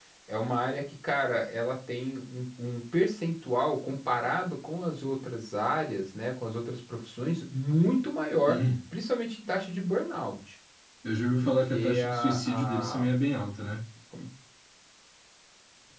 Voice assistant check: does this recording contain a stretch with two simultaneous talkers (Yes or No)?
Yes